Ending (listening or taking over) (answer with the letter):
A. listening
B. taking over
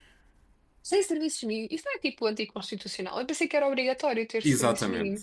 B